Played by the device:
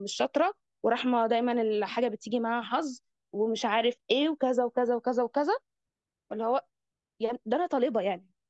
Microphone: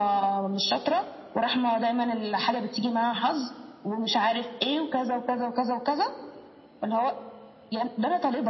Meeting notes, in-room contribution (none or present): none